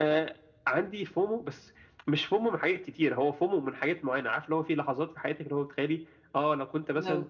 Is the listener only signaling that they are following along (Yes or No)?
Yes